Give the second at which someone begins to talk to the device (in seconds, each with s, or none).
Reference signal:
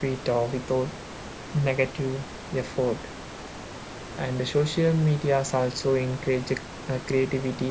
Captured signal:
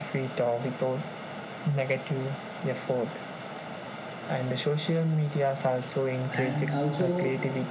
6.3 s